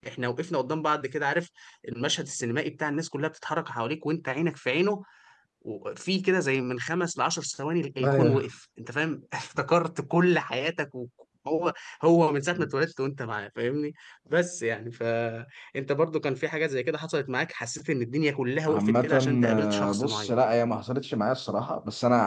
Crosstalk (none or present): present